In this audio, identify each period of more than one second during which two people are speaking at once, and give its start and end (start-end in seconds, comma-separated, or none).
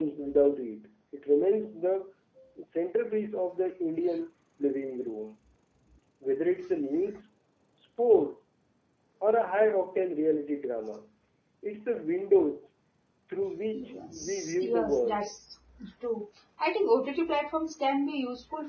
13.7-15.2